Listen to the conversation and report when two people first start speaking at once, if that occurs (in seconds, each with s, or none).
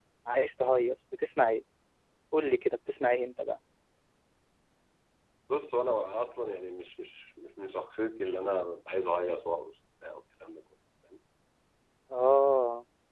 none